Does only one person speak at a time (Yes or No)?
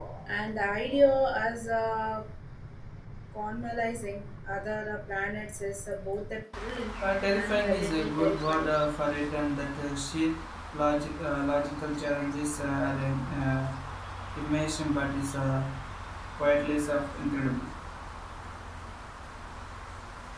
No